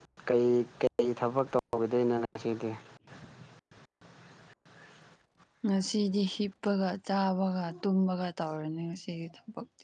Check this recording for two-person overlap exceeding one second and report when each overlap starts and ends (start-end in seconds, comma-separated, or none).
none